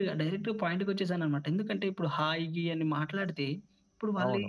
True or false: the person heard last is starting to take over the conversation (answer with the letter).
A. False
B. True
A